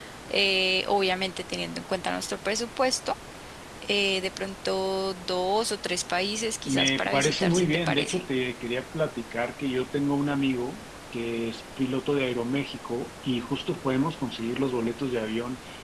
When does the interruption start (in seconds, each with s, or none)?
6.7 s